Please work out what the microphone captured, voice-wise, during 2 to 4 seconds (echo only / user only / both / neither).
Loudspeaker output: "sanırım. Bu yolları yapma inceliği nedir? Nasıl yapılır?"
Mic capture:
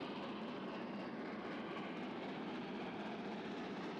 neither